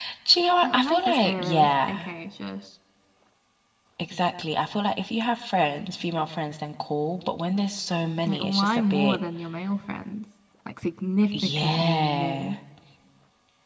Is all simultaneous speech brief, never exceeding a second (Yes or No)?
No